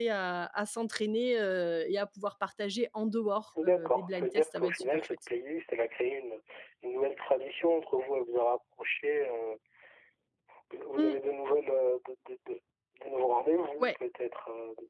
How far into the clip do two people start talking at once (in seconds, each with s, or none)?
3.5 s